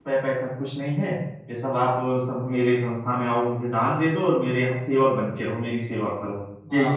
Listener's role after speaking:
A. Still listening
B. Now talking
B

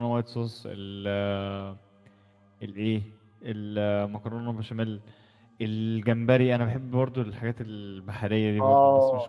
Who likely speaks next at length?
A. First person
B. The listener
B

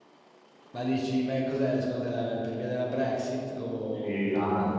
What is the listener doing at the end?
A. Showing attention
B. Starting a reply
B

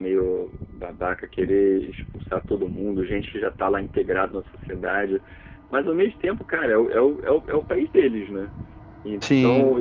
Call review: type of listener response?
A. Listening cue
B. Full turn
A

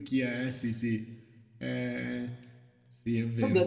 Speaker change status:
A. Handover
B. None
A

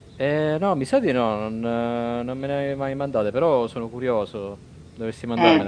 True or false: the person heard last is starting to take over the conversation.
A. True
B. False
A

